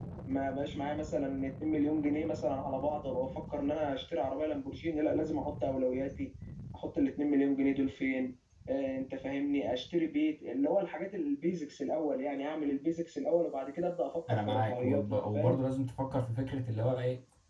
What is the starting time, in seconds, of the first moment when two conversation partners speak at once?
14.3 s

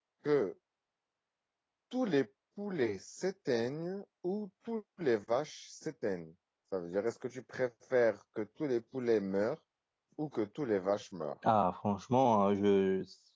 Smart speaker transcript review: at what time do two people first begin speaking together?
none

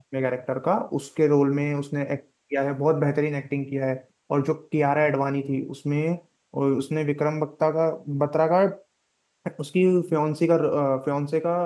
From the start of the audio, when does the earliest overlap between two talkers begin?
none

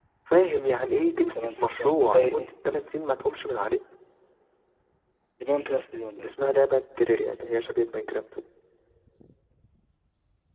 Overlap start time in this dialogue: 1.3 s

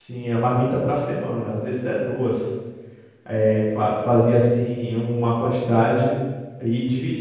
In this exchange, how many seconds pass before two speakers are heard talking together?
none

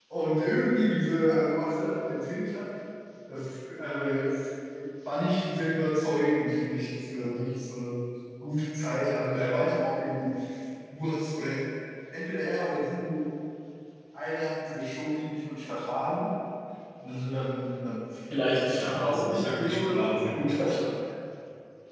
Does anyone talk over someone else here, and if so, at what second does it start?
18.6 s

